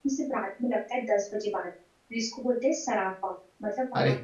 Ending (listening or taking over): listening